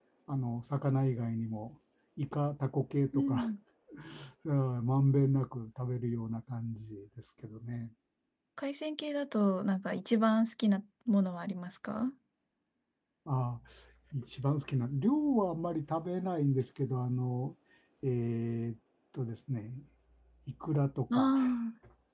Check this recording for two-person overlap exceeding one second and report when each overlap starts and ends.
none

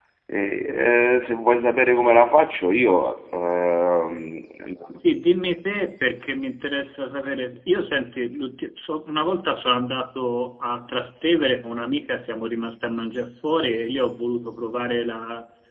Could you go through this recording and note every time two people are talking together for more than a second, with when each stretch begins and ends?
none

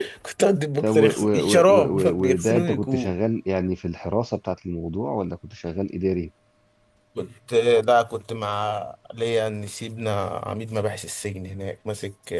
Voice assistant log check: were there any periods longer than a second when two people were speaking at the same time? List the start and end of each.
0.8-3.1

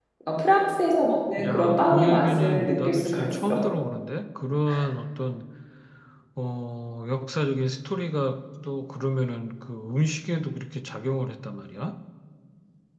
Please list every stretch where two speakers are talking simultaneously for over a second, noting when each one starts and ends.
1.4-3.6

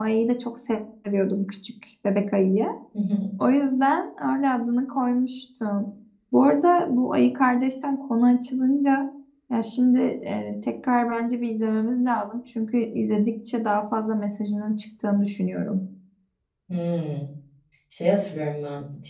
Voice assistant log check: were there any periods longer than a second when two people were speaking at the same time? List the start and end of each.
none

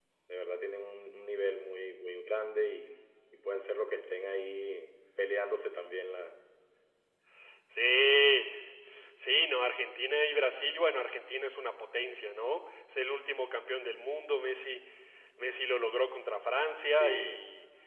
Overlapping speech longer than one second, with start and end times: none

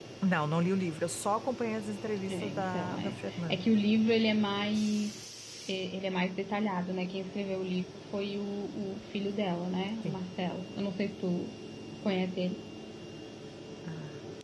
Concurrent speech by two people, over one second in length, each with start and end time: 2.3-3.6

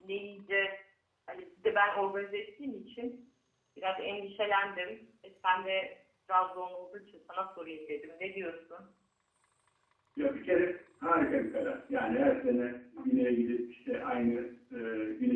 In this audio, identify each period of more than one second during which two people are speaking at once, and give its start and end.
none

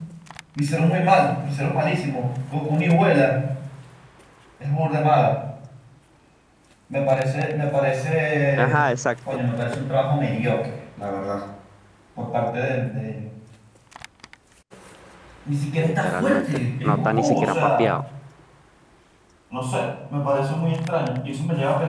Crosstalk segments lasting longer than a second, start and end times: 15.8-17.9

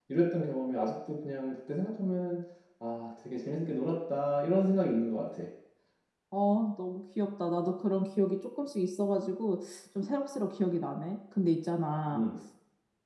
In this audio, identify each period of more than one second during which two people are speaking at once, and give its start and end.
none

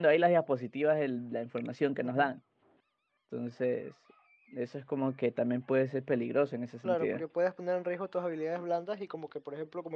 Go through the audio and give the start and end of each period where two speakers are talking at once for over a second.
none

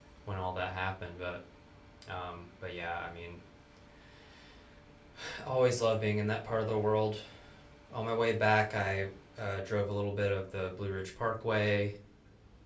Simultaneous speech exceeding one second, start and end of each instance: none

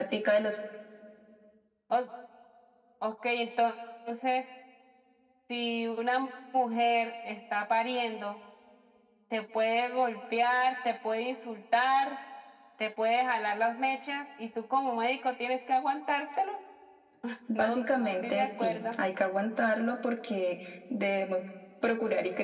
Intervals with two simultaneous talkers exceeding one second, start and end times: 17.6-18.8

